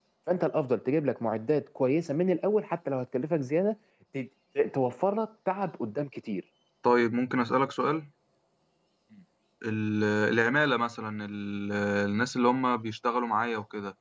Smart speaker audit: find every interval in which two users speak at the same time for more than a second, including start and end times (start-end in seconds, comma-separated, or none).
none